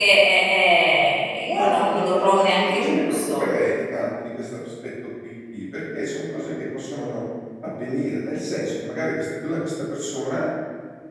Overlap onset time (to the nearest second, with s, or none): 1 s